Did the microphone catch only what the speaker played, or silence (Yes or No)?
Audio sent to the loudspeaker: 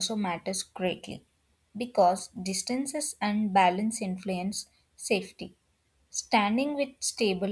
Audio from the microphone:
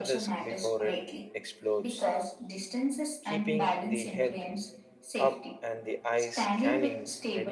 No